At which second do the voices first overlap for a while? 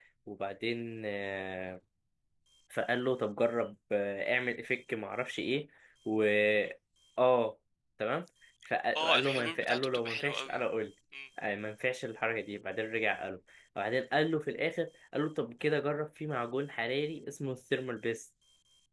9 s

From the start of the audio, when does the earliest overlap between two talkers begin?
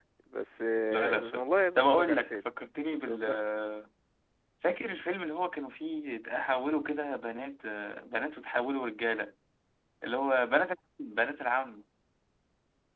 1 s

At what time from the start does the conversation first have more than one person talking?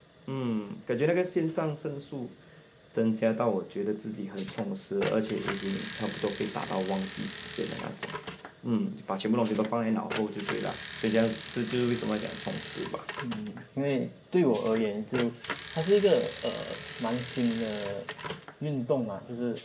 none

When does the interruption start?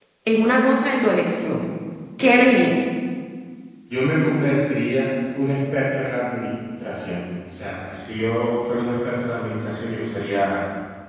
none

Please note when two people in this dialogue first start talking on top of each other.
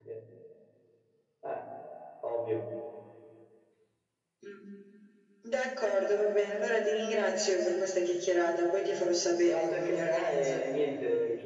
9 s

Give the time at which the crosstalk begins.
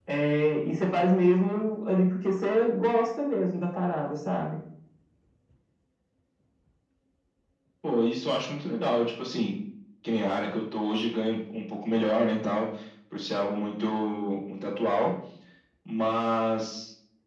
none

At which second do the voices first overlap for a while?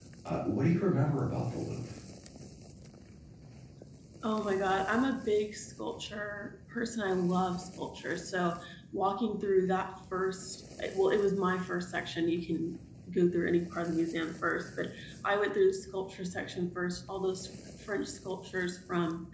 none

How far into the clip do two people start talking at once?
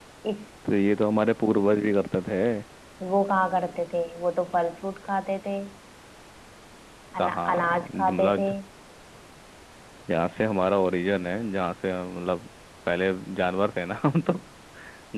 7 s

